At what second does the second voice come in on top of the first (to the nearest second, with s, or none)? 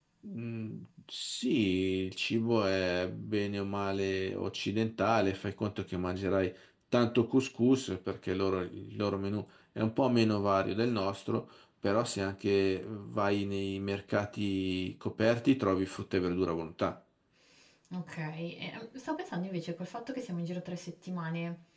none